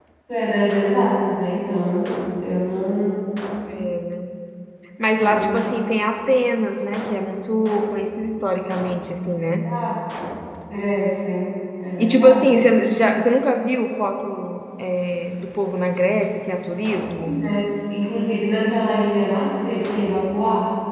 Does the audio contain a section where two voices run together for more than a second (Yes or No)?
No